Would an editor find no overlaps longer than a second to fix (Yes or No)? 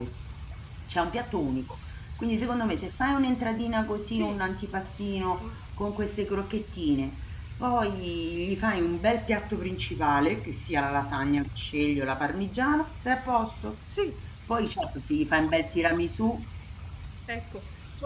Yes